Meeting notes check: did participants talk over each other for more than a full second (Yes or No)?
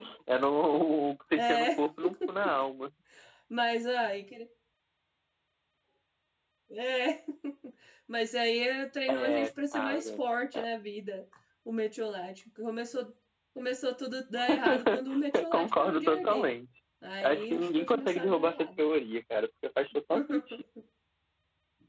Yes